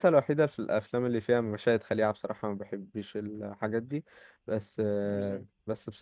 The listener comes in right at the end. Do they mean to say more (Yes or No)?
No